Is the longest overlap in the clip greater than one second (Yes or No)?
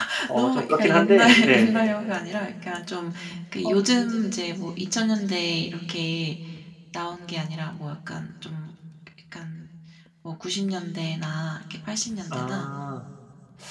Yes